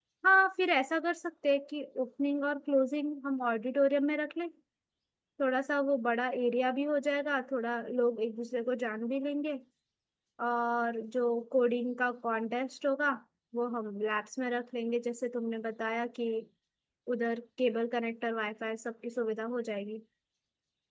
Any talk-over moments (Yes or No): No